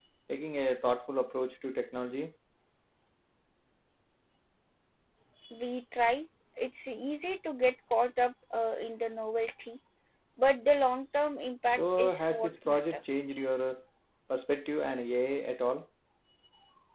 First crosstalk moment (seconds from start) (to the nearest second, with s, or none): 12 s